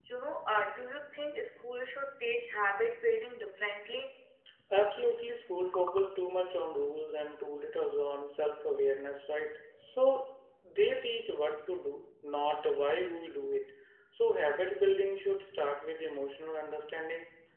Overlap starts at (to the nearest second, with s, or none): none